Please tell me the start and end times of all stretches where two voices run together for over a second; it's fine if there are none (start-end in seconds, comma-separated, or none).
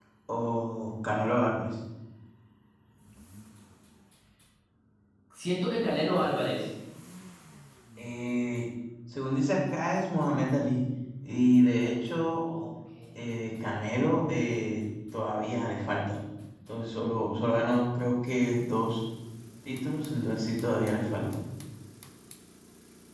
none